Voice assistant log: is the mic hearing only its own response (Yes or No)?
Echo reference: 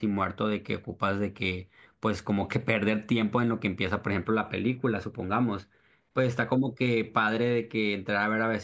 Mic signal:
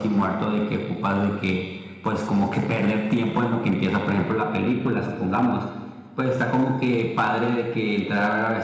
Yes